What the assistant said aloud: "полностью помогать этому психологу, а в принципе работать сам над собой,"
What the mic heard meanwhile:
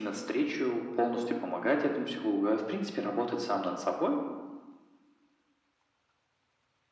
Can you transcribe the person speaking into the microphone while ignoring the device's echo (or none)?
none